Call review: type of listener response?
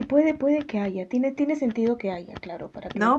taking over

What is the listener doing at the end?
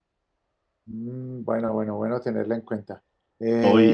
taking over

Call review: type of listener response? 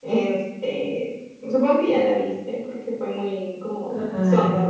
listening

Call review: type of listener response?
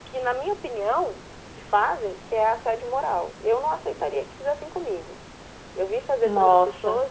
listening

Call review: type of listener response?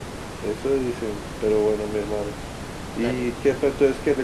listening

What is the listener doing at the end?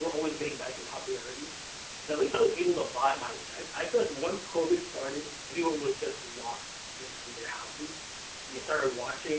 listening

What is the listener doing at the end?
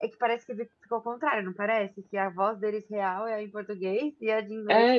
taking over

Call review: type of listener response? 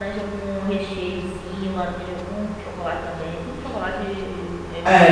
taking over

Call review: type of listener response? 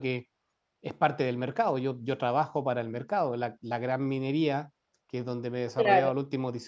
listening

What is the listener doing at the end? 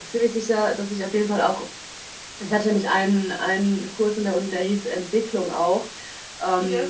listening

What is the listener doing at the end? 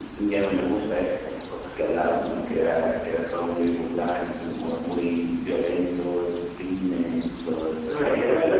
taking over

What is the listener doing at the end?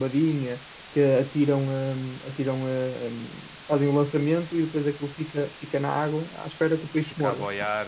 taking over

